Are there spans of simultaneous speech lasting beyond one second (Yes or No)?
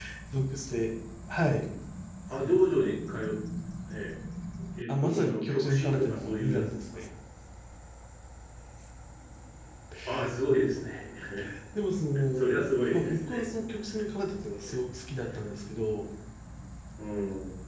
Yes